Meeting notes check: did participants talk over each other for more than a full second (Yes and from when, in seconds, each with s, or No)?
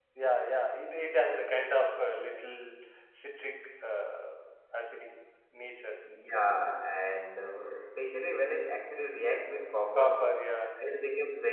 No